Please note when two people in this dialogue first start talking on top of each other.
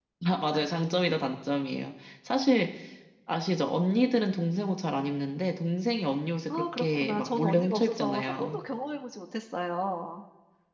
6.5 s

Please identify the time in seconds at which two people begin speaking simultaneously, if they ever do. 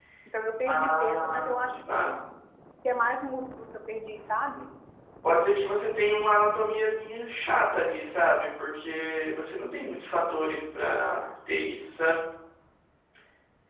0.6 s

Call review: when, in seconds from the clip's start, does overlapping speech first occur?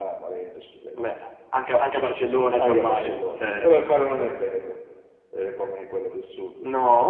2.6 s

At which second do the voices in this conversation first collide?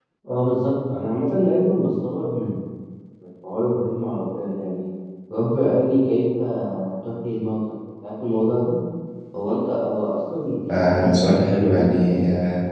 10.7 s

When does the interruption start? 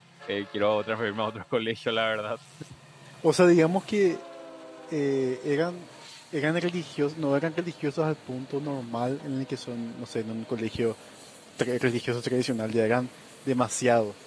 none

